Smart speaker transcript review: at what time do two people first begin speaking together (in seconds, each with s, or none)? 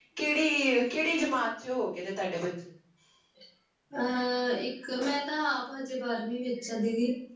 none